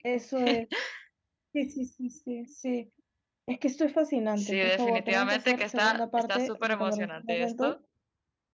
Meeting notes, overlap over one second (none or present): present